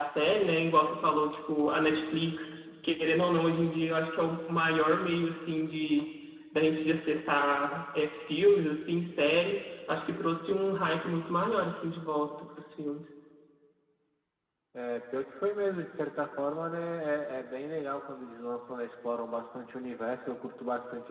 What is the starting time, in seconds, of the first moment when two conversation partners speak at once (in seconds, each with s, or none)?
none